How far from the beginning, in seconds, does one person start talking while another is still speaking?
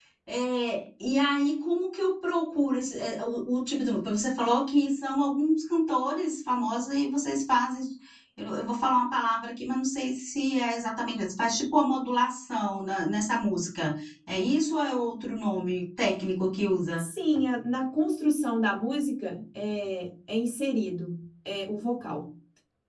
none

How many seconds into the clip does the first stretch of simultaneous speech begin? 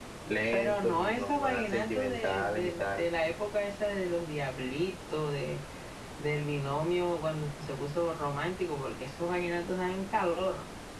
0.5 s

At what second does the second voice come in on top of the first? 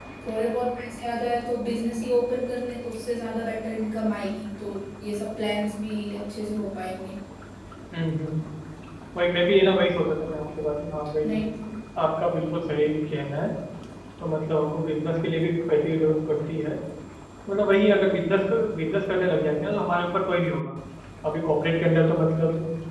none

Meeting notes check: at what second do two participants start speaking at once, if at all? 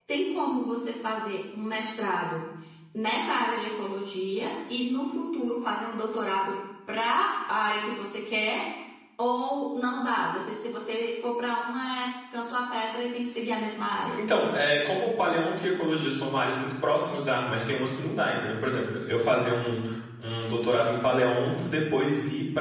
none

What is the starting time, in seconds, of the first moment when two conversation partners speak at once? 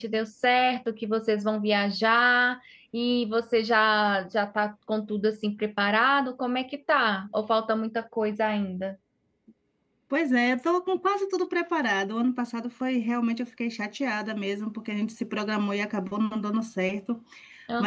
none

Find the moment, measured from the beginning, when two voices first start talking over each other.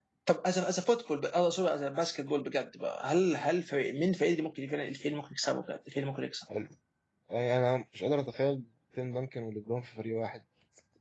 none

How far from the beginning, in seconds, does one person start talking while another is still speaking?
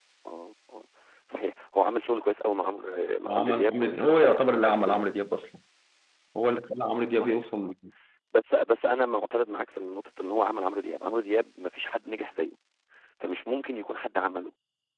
3.3 s

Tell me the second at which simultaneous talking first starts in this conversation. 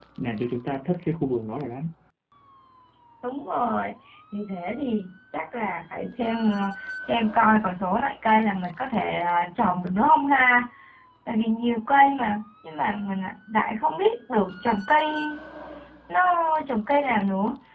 none

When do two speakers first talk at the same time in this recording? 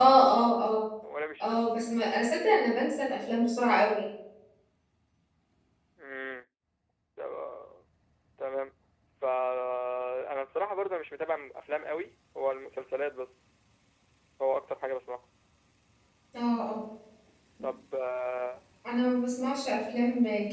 none

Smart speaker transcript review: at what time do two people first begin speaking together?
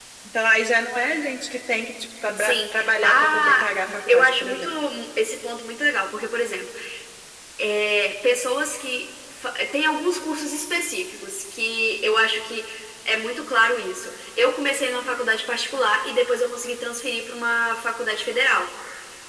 2.4 s

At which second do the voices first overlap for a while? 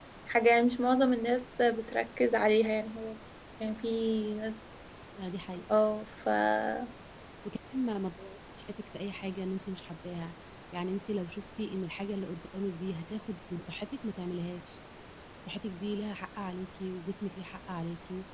none

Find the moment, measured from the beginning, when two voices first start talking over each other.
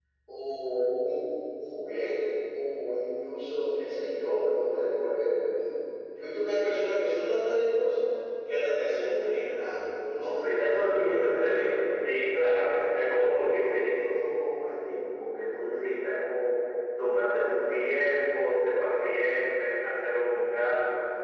10.2 s

